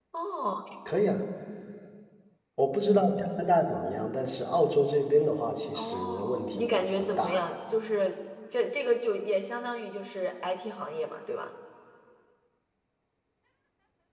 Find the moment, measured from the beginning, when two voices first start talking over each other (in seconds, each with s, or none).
5.8 s